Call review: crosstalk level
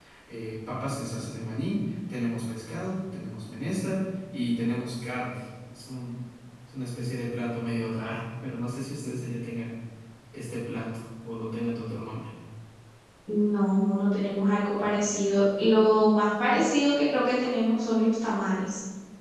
none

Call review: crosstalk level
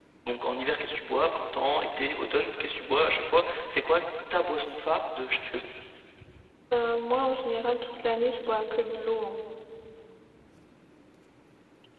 none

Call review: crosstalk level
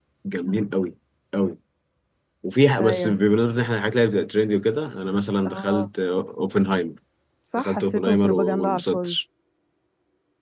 present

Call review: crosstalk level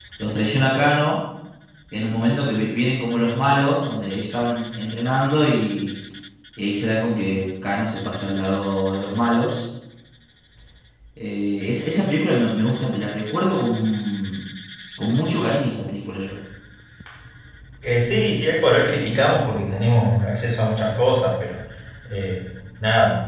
none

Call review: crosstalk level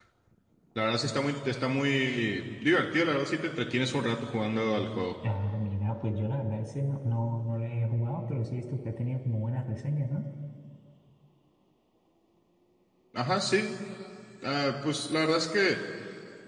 none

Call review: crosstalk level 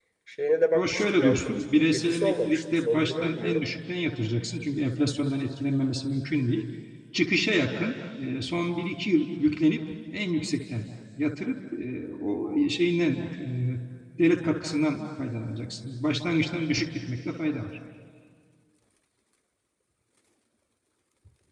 present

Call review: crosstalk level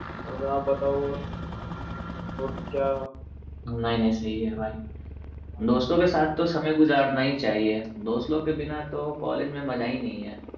none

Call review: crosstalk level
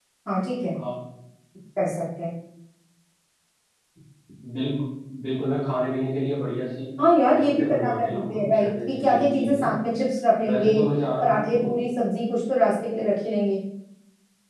present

